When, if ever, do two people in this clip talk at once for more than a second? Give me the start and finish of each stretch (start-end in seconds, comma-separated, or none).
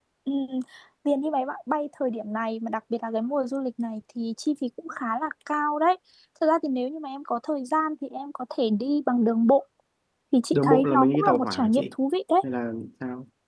10.5-11.8